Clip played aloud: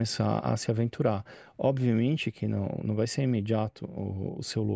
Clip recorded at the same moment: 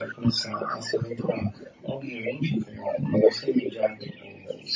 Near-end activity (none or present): none